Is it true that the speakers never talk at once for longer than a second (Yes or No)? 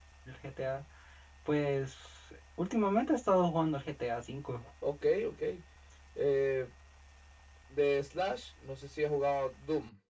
Yes